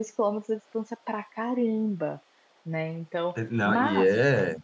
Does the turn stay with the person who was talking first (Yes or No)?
No